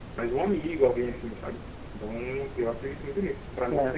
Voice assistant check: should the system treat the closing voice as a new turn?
Yes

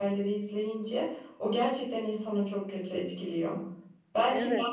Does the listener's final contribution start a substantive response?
No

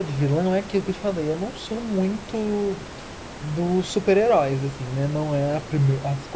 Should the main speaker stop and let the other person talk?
No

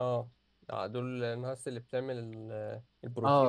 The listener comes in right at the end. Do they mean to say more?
Yes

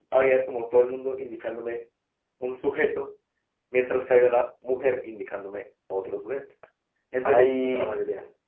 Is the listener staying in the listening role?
Yes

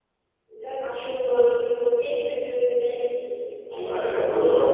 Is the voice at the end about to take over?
Yes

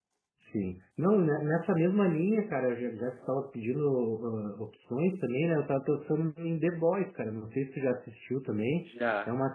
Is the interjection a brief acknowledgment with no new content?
Yes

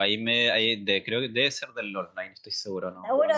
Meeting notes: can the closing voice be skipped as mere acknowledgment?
No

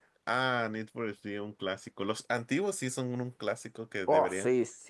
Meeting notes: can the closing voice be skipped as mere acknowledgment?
No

